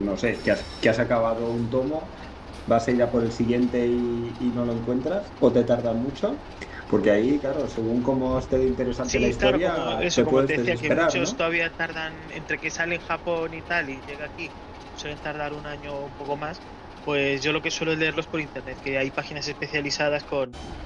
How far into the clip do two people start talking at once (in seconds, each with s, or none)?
9.1 s